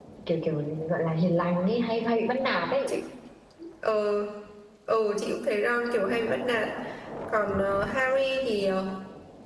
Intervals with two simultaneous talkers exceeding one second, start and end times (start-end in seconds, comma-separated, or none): none